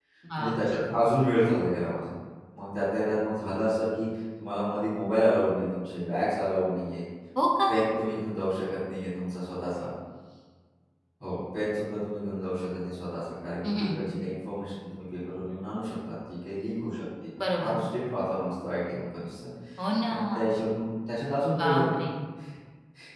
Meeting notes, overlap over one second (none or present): none